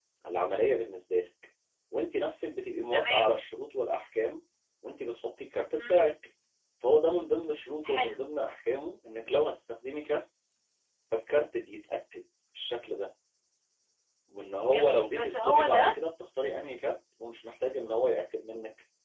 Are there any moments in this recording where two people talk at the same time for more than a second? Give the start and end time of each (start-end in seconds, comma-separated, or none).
14.6-15.9